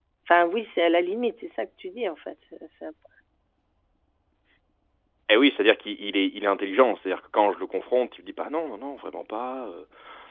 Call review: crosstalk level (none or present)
none